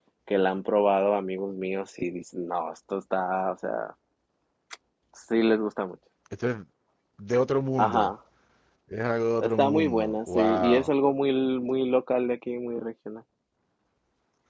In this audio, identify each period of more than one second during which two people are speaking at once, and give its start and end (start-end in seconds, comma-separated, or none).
9.4-10.9